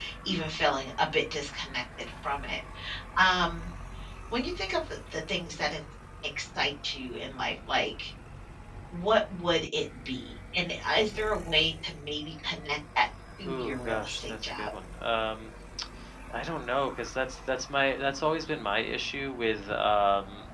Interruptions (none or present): present